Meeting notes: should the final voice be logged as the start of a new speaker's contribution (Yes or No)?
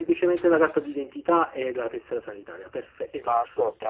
Yes